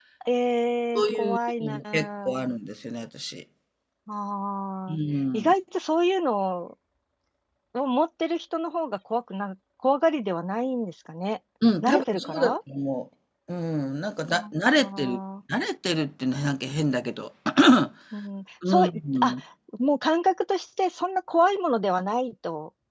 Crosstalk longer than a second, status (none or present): present